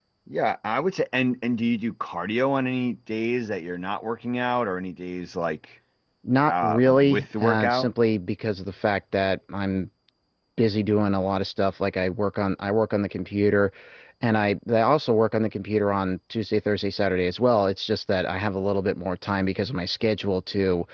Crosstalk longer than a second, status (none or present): present